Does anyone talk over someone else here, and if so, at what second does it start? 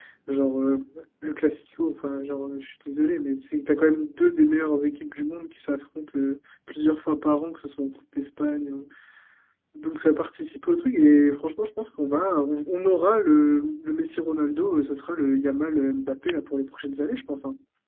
none

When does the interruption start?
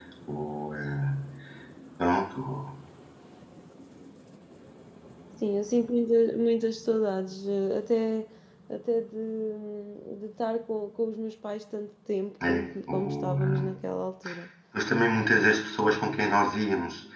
12.4 s

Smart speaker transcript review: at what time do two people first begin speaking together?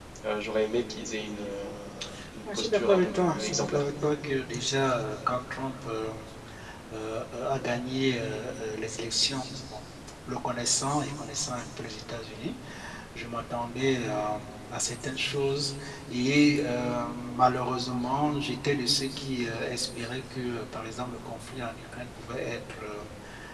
2.5 s

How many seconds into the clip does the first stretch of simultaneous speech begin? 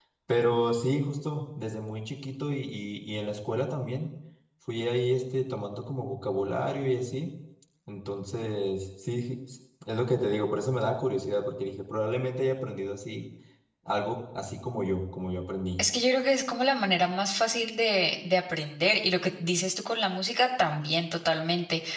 none

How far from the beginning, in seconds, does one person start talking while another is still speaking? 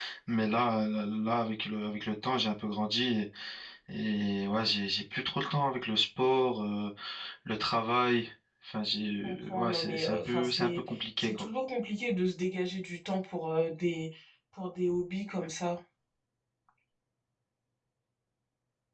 9.2 s

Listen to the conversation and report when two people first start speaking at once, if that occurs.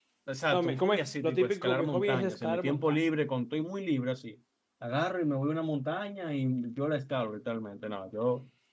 0.5 s

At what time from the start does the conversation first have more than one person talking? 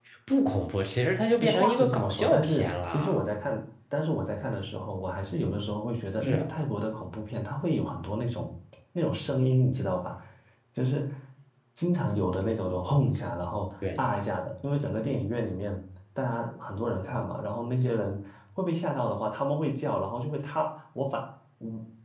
1.6 s

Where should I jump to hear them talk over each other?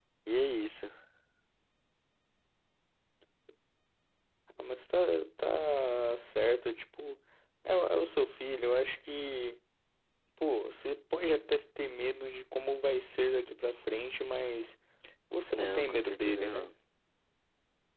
15.5 s

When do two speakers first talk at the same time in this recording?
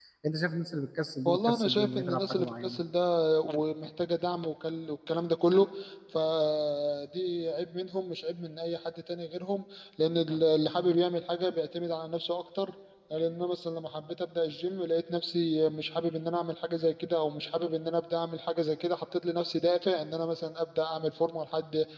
1.3 s

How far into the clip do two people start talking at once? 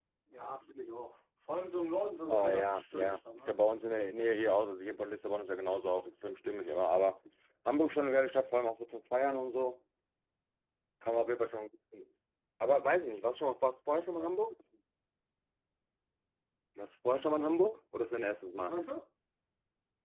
2.3 s

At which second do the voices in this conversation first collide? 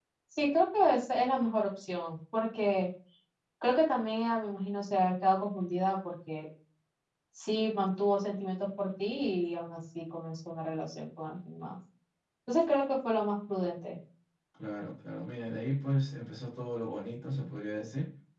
none

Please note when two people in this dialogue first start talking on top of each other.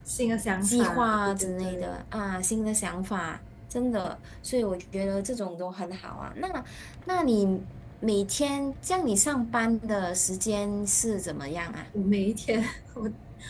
0.6 s

